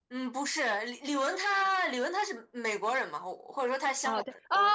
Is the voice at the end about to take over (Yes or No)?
Yes